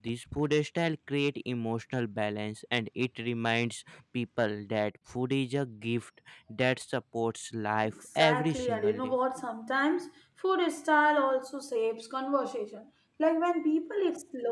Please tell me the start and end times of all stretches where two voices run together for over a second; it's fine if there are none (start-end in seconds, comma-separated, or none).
7.8-9.1